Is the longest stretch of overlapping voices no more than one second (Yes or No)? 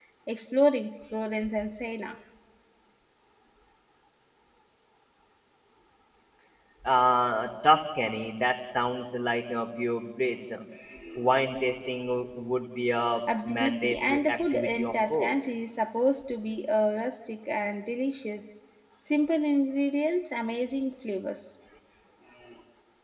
No